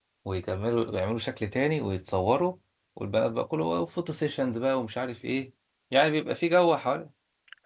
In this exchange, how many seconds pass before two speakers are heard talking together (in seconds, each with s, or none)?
none